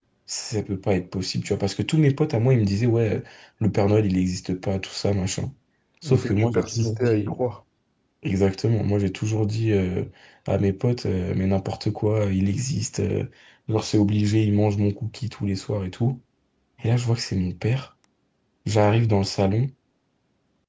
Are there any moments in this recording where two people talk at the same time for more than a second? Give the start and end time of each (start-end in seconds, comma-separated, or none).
6.0-7.4